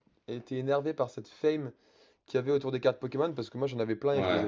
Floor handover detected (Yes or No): No